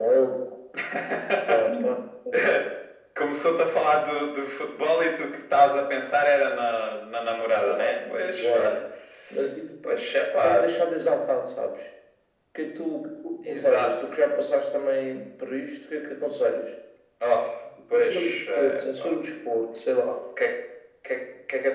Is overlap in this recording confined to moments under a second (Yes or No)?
No